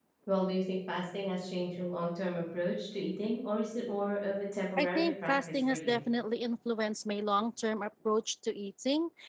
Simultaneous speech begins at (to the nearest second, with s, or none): 5 s